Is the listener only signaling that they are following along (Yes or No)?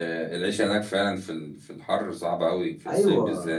No